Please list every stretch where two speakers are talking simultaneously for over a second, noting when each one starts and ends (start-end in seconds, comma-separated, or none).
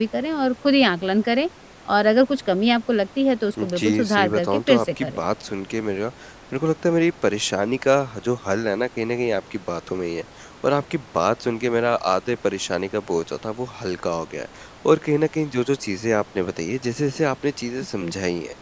3.6-5.2